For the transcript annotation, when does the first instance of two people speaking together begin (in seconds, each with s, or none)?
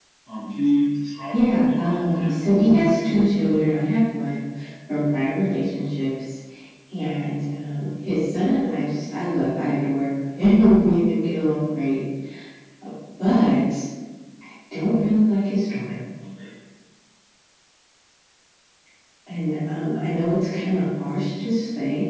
1.3 s